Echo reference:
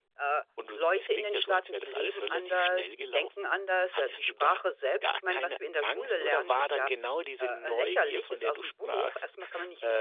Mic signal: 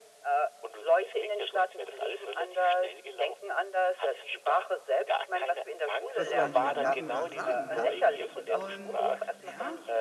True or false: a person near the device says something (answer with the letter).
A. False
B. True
B